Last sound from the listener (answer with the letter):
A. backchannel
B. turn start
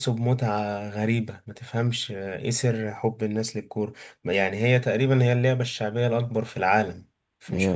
A